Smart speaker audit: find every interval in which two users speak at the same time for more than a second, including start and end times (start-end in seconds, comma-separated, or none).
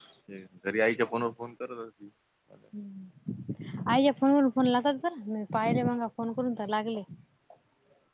none